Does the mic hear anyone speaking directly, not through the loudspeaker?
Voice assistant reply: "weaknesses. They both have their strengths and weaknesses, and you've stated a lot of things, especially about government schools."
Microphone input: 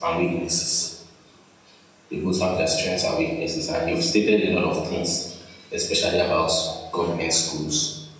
No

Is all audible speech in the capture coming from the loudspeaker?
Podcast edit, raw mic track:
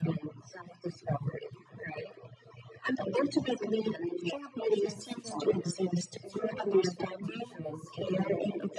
No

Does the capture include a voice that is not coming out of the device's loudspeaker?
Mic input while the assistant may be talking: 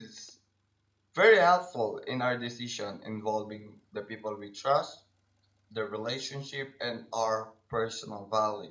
Yes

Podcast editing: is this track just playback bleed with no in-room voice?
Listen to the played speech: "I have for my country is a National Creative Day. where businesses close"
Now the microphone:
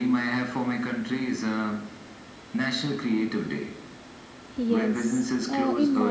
No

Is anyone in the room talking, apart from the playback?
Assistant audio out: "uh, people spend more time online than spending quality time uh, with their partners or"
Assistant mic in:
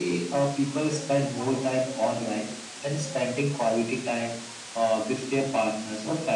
No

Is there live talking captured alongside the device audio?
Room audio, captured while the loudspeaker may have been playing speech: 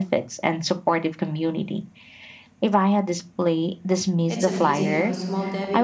Yes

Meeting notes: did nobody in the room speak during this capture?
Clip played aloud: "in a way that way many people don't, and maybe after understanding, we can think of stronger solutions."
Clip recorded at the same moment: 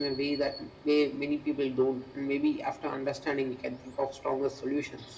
Yes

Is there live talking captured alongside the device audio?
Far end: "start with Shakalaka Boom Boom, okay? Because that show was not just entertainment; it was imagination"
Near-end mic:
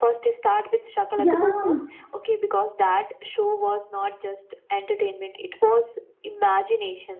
Yes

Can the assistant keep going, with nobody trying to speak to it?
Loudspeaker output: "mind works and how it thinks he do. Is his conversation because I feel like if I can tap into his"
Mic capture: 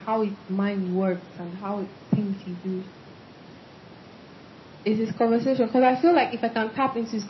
Yes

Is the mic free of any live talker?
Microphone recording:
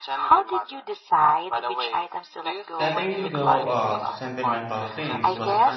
No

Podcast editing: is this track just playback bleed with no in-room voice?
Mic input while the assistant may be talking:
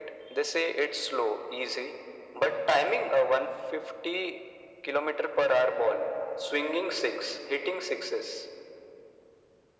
Yes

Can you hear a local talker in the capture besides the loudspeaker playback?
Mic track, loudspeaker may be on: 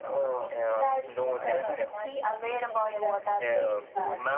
Yes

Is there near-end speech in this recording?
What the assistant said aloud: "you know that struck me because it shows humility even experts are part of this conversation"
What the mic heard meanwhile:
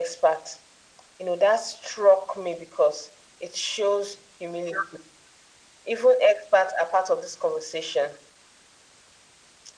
No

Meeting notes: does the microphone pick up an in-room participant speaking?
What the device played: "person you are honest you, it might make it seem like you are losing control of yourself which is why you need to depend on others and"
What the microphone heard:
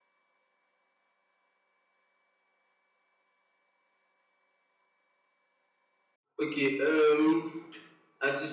Yes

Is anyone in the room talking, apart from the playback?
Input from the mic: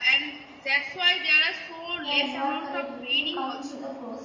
Yes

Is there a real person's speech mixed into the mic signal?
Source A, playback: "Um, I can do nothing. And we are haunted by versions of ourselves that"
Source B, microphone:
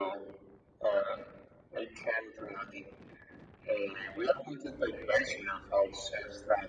No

